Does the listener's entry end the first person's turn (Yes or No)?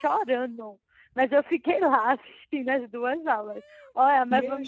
Yes